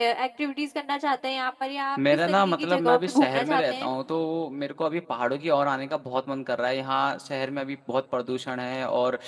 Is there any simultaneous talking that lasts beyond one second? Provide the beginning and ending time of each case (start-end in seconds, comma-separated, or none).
2.2-3.9